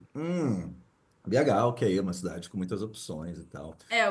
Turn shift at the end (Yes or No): Yes